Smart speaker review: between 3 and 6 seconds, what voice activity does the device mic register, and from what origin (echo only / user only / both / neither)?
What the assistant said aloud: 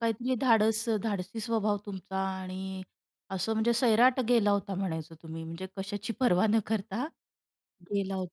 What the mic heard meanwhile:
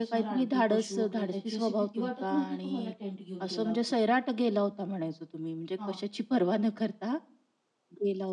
both